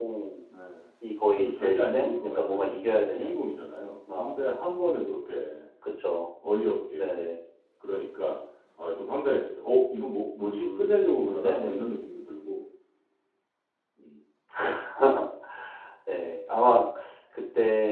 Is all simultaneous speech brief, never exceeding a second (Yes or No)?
No